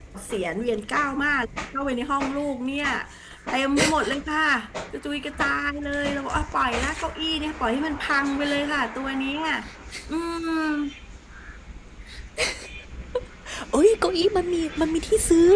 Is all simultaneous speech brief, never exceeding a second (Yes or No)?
Yes